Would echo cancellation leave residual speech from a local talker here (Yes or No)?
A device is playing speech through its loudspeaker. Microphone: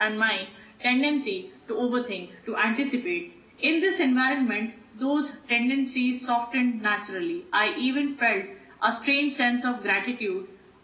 No